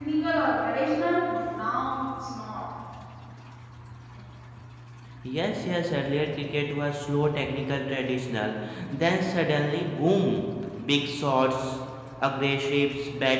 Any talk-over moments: No

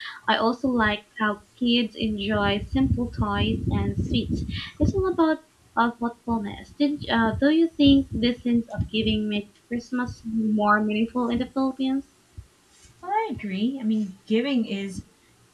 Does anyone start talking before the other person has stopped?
No

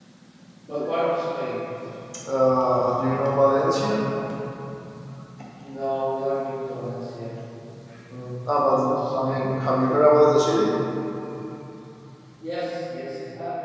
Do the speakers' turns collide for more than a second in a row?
No

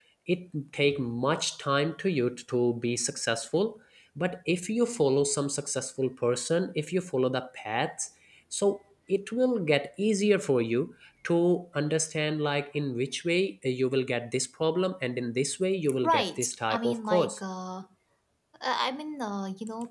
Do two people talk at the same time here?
Yes, from 15.9 s

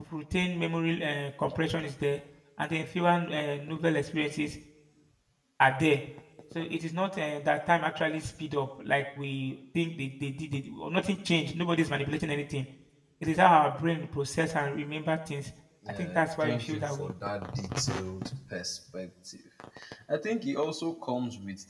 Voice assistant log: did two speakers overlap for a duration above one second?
Yes, from 15.8 s

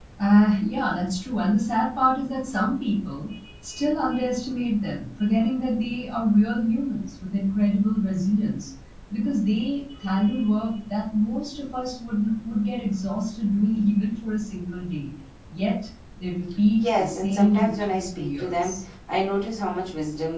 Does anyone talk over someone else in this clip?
Yes, from 16.8 s

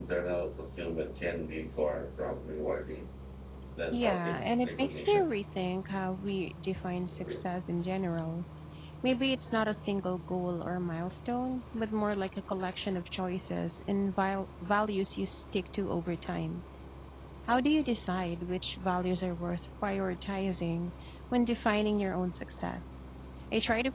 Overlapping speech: Yes, from 3.9 s

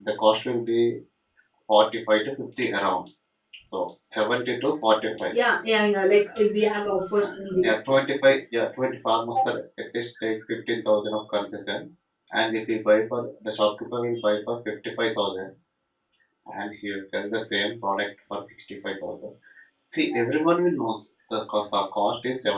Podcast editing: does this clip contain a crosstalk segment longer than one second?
No

